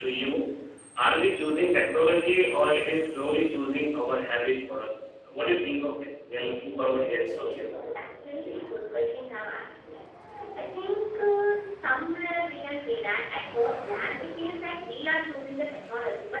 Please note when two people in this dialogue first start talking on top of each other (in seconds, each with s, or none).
6.4 s